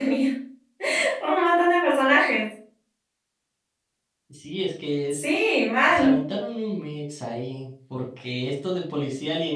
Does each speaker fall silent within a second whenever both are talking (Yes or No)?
Yes